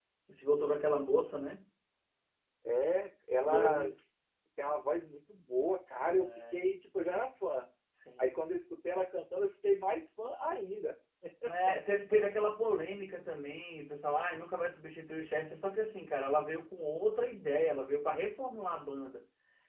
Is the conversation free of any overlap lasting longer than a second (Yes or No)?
Yes